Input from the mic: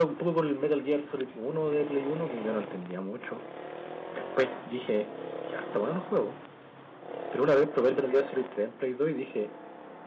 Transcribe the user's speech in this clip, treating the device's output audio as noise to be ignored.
none

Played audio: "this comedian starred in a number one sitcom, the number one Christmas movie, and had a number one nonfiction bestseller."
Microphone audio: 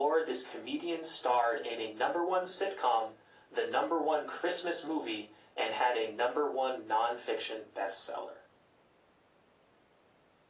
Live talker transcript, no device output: none

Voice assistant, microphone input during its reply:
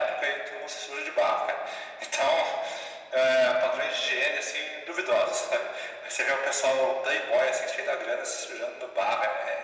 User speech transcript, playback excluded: none

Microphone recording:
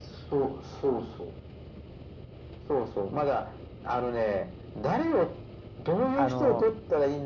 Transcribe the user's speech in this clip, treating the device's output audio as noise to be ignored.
あの、

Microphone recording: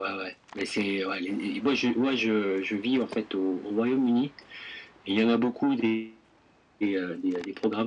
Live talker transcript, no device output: none

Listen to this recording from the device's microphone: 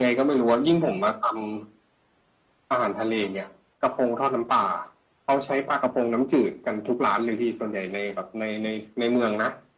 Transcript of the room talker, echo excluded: none

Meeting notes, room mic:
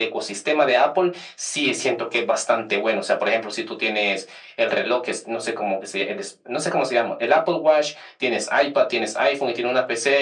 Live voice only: none

